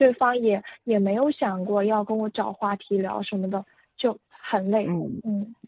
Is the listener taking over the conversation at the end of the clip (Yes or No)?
Yes